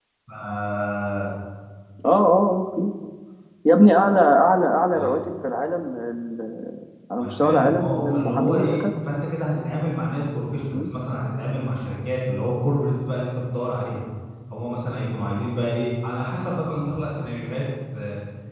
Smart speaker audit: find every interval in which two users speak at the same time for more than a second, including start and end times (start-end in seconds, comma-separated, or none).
7.2-8.8